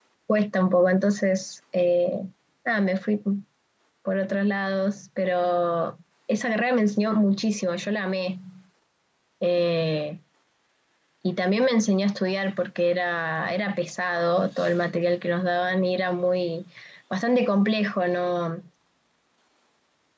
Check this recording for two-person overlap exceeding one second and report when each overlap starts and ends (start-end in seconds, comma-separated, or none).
none